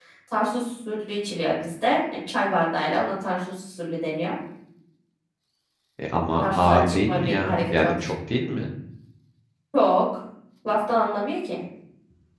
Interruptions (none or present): present